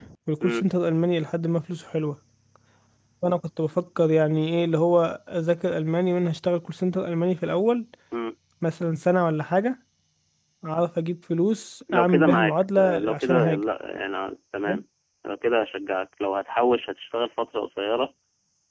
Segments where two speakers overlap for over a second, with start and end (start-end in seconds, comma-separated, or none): 11.9-13.6